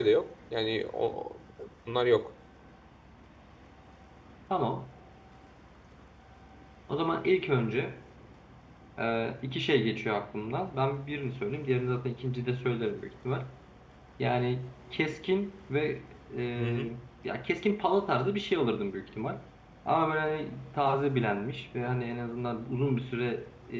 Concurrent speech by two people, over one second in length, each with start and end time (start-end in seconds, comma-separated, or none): none